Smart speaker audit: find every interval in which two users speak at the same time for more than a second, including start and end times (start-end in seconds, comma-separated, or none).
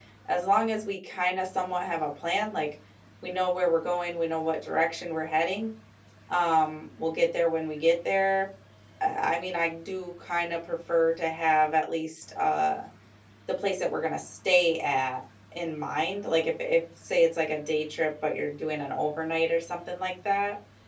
none